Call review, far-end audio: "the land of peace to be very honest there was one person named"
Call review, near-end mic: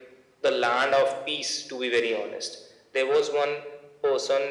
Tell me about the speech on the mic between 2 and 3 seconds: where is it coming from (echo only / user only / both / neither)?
echo only